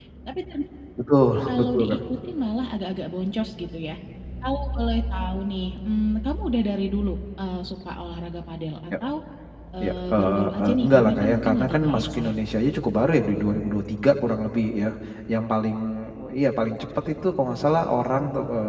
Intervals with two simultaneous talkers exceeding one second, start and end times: 9.8-12.3

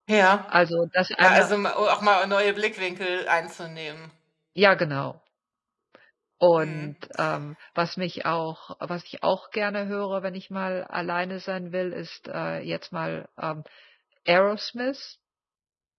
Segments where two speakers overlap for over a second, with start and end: none

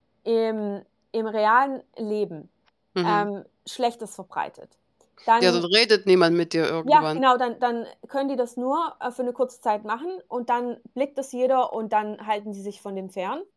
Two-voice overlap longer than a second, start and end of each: none

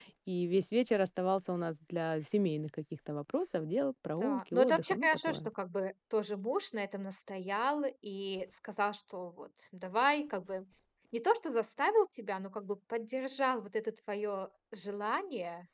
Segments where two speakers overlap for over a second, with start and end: 4.2-5.5

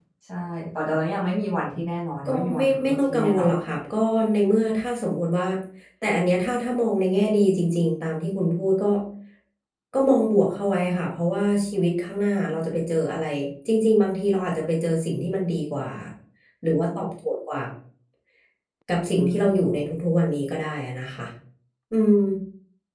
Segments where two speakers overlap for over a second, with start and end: 2.2-3.5

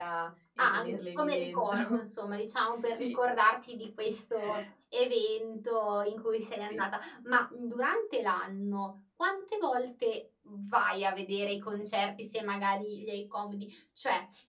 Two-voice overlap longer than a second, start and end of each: 0.6-2.0

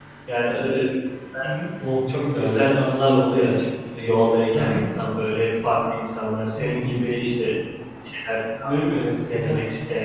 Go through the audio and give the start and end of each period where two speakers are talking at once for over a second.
none

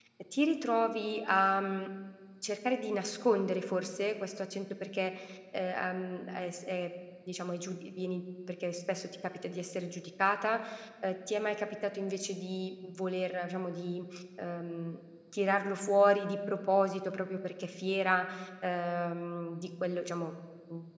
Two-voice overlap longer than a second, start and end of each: none

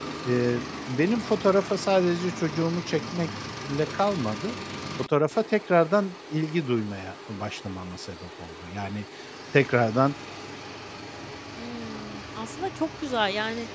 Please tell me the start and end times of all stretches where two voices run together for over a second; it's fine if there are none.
none

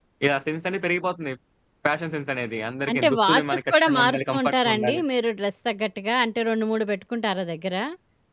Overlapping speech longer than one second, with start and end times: 2.9-5.0

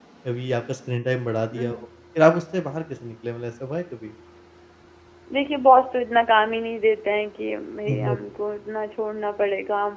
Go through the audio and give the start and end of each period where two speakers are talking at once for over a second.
none

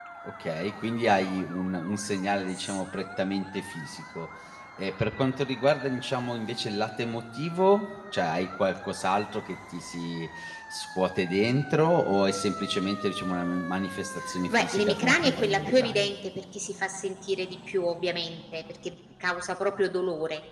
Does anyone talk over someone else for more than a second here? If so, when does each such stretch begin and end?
14.5-16.1

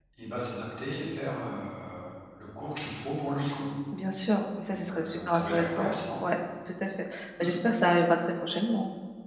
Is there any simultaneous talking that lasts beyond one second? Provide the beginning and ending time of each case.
4.7-5.9

